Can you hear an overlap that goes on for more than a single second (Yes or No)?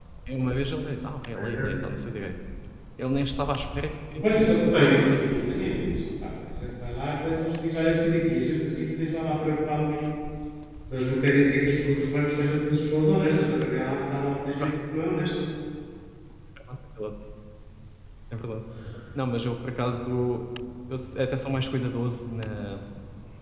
Yes